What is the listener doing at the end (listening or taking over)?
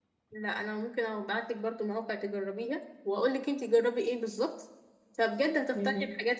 listening